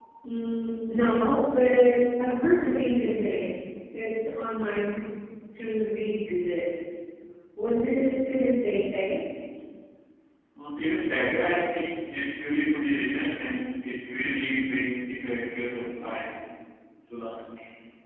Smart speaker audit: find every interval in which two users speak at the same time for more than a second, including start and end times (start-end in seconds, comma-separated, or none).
none